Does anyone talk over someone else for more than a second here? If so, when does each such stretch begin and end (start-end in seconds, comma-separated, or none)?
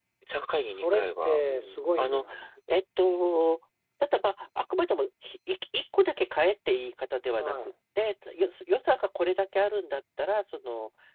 0.8-2.2